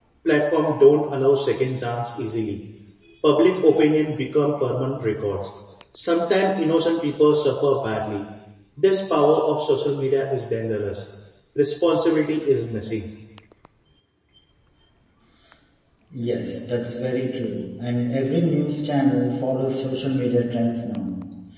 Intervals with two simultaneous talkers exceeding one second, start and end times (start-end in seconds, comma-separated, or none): none